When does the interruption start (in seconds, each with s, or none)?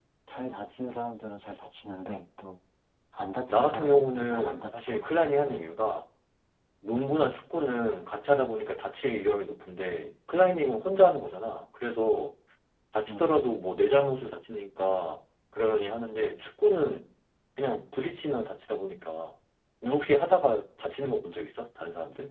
3.5 s